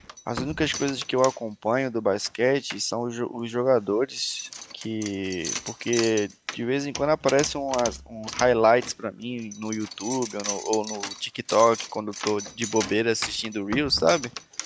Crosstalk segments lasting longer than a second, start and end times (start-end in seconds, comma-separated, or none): none